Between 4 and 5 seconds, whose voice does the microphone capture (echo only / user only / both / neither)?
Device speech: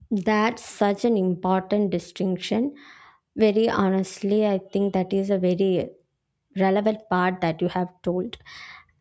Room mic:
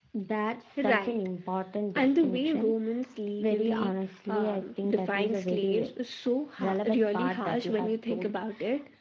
both